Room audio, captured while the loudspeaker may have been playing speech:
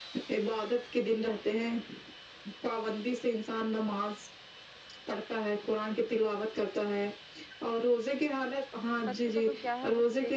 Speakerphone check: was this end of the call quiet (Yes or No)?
No